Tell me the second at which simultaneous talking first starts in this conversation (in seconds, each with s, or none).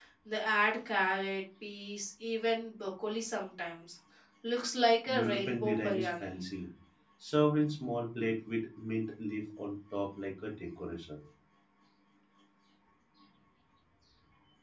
5.1 s